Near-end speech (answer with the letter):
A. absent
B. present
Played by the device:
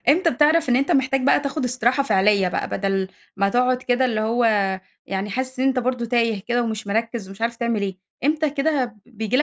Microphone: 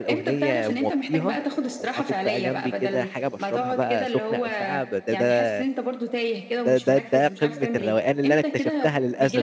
B